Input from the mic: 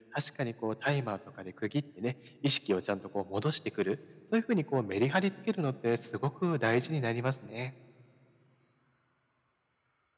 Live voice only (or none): none